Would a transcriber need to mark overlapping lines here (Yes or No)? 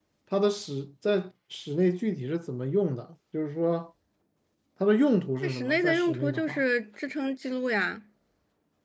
Yes